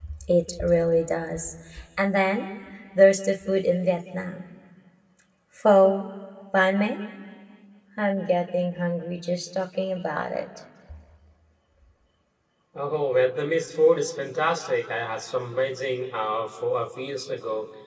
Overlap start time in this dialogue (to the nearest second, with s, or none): none